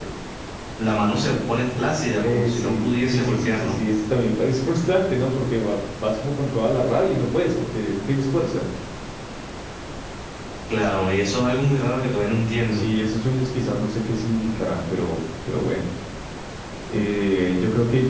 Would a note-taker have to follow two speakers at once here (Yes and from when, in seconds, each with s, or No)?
Yes, from 2.2 s